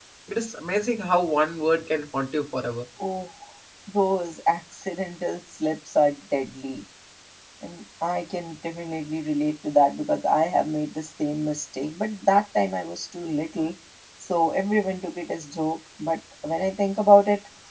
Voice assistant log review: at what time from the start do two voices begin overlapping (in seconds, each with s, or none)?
none